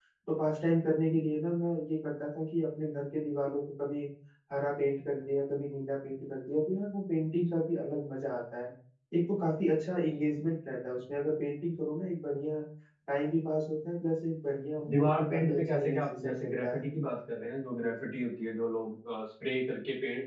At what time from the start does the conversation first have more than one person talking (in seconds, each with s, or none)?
14.8 s